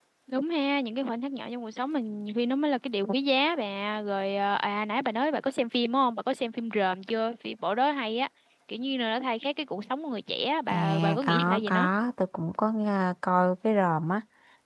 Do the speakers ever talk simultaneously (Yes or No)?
Yes